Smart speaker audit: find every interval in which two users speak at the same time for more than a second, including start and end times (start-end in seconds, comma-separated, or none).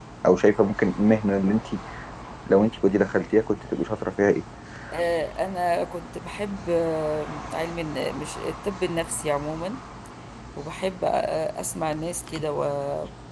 none